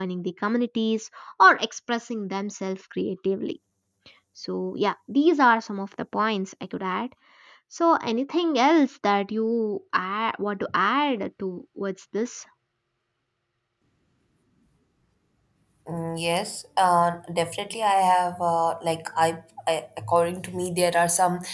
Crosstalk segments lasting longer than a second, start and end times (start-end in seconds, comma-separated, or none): none